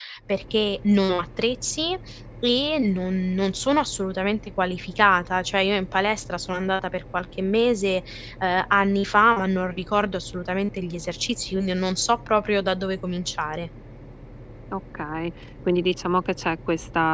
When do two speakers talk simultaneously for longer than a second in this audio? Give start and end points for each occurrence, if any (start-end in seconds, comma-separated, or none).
none